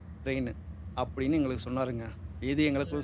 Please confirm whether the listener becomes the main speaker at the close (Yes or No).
No